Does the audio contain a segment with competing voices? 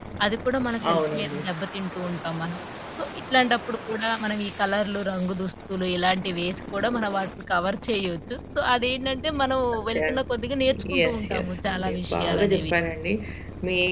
Yes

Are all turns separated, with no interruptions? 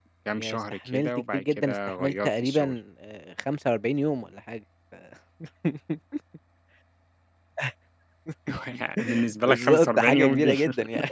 No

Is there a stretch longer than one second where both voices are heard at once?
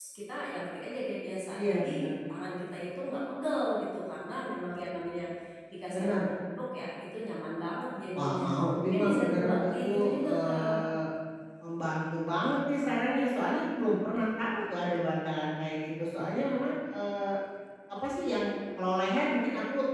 Yes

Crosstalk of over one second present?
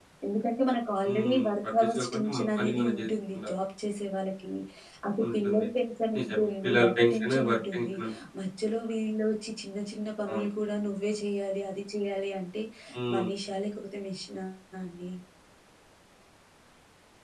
Yes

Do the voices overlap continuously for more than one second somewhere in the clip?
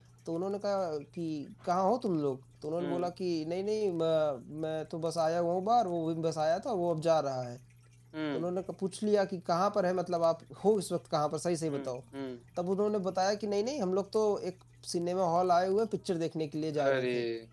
No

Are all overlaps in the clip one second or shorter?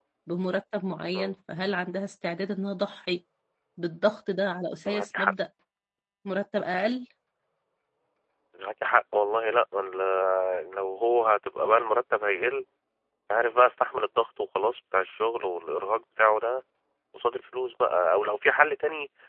Yes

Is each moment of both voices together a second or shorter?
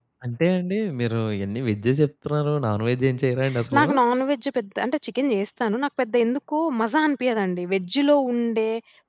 Yes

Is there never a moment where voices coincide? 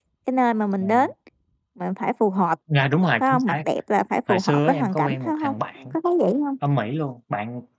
No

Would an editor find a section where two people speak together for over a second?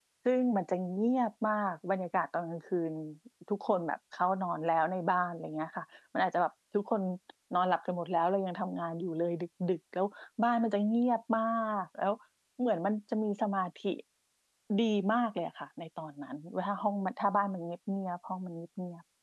No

